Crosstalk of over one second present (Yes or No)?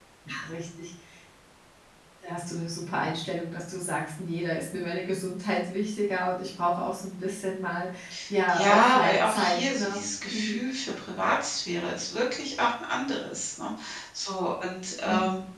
Yes